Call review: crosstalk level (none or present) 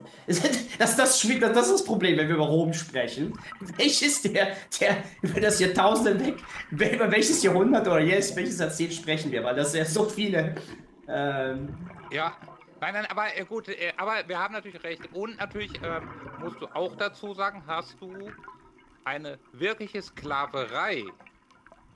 none